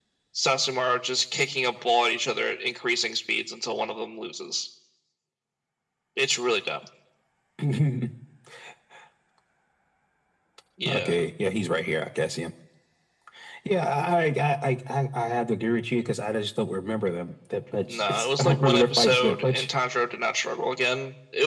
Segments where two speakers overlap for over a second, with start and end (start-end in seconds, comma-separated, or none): 17.9-19.7